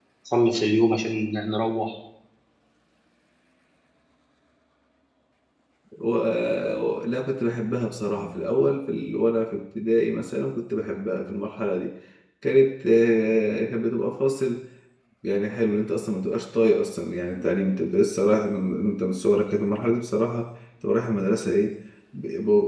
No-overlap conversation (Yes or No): Yes